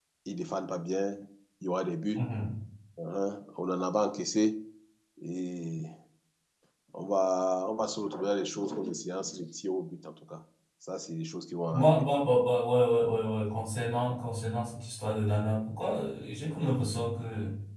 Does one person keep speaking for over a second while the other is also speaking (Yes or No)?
No